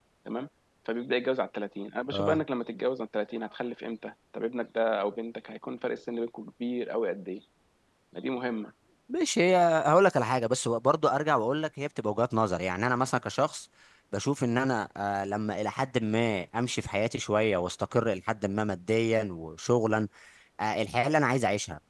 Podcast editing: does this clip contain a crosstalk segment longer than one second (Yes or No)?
No